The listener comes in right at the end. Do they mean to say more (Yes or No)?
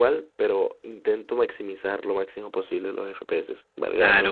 Yes